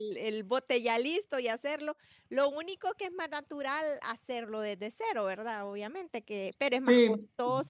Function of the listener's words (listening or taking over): listening